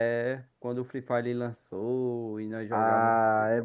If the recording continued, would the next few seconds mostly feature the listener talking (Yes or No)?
Yes